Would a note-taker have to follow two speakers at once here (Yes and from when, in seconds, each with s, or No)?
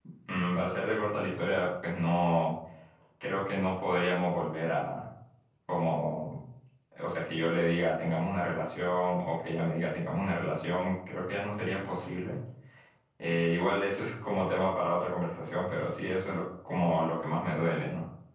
No